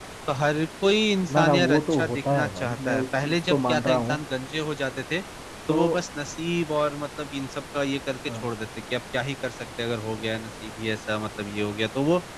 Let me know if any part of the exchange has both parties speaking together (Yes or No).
Yes